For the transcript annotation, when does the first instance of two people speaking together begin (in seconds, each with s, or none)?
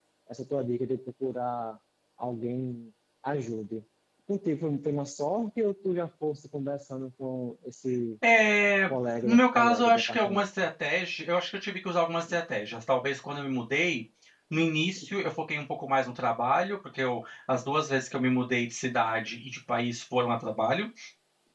9.2 s